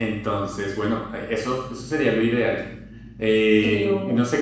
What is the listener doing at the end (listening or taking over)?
listening